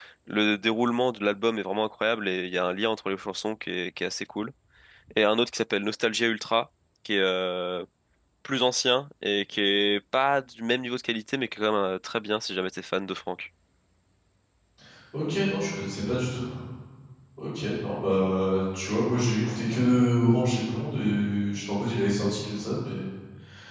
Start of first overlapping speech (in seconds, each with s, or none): none